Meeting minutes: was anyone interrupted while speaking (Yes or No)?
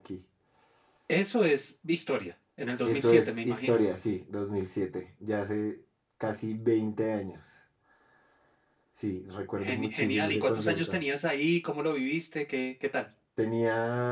Yes